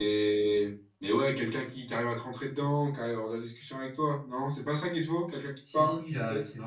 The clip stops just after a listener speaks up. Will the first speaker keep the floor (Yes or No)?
No